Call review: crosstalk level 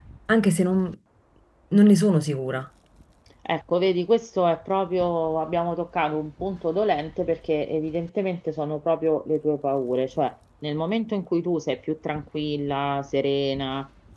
none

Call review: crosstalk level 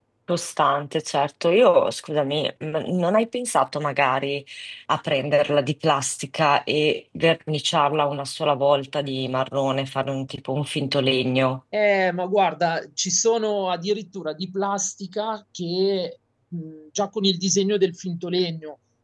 none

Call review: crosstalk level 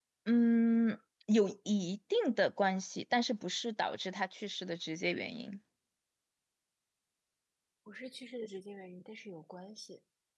none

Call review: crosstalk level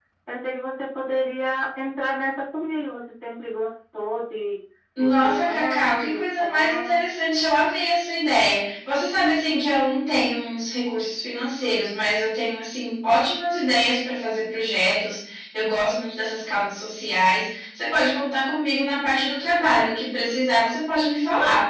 present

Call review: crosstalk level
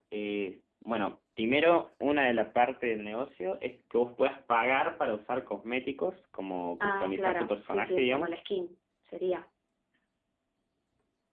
present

